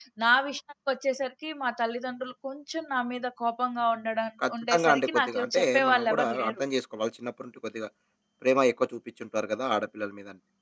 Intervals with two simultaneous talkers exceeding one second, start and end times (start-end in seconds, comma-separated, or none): 4.5-6.6